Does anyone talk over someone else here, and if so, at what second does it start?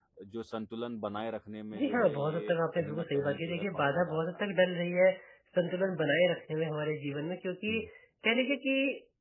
1.7 s

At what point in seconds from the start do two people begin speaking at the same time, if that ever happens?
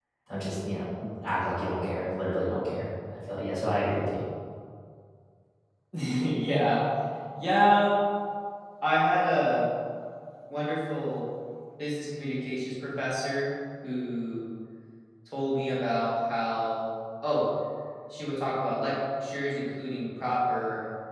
none

